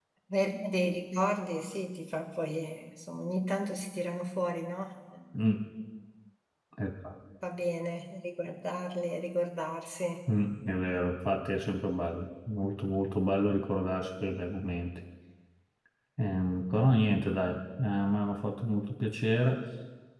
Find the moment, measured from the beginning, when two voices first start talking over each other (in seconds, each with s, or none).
none